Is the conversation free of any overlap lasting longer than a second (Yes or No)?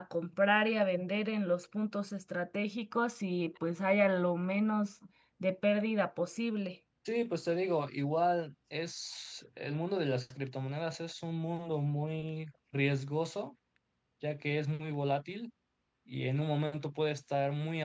Yes